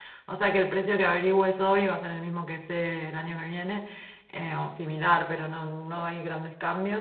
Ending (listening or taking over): listening